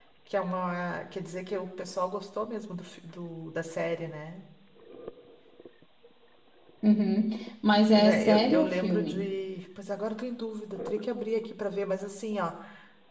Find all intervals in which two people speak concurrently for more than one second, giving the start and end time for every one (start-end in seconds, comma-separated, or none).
7.9-9.3